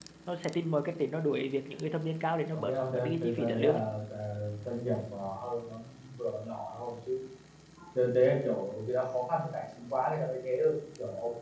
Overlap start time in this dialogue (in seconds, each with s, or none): 2.5 s